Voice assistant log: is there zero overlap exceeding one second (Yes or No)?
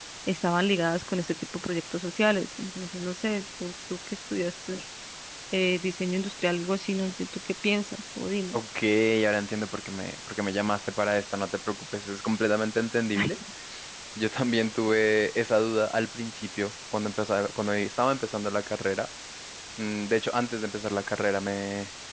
Yes